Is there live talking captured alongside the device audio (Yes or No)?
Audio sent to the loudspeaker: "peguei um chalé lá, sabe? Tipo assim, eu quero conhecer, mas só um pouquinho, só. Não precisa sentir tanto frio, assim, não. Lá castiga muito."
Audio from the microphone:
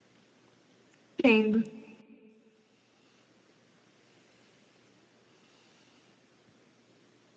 Yes